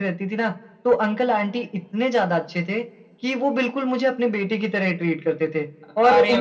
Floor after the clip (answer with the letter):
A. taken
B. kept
B